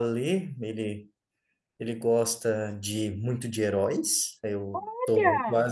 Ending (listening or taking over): listening